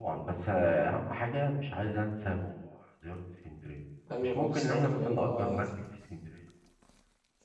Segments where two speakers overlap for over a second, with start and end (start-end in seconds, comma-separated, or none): 4.2-5.7